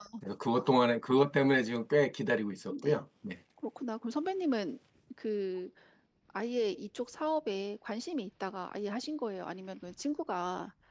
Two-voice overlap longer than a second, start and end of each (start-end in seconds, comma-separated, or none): none